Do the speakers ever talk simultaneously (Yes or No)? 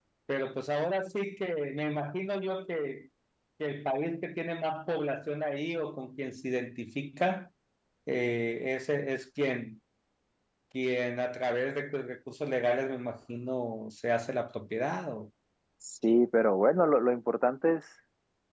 No